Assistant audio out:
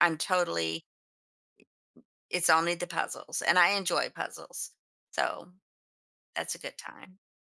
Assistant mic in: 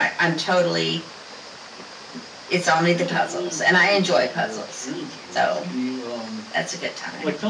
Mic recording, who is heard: both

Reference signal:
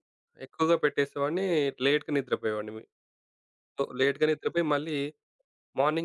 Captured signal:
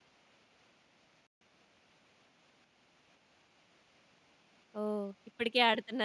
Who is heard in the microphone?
user only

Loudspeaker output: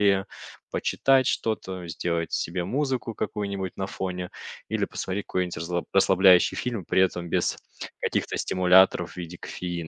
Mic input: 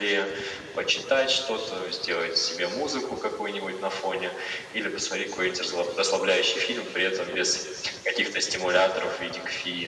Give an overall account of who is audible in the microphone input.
echo only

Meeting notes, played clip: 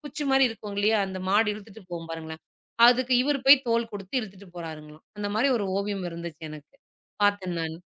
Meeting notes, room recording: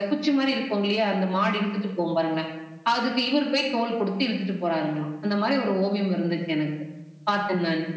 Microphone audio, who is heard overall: echo only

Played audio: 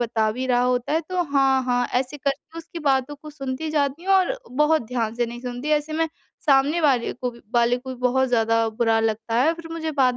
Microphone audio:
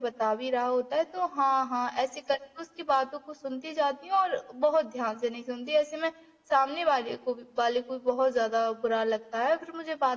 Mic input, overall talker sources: echo only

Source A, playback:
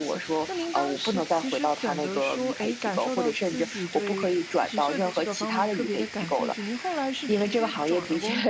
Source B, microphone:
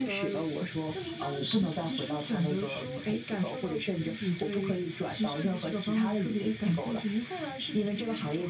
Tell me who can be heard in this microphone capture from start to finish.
echo only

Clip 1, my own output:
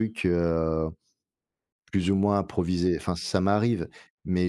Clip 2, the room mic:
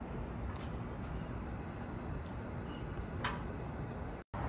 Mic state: neither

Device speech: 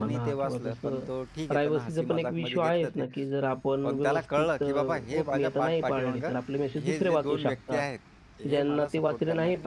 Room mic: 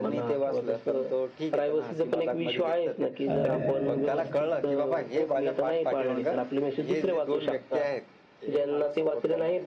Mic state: both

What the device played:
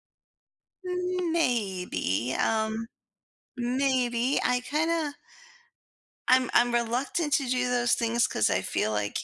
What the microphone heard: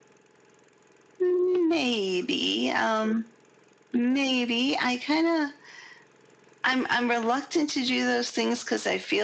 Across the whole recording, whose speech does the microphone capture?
echo only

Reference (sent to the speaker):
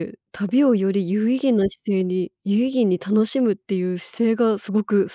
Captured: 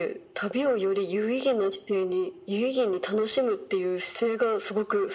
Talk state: echo only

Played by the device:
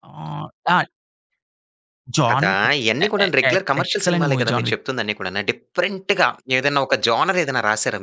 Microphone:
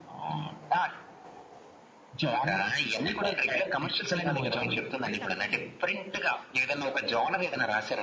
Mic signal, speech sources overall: both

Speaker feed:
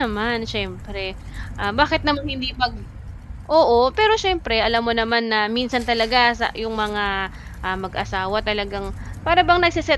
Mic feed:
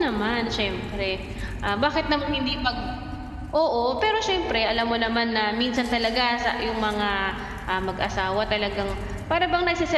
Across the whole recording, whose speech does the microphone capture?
echo only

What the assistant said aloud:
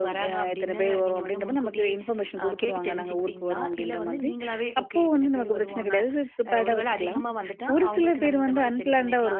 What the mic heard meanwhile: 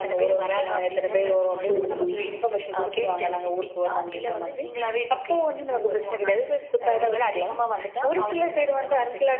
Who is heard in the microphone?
both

